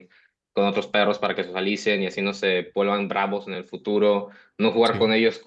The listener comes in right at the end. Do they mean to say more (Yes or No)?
No